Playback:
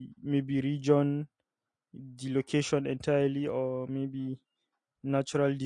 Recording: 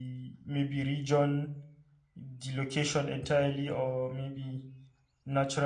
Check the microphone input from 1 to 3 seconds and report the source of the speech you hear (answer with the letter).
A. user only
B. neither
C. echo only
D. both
C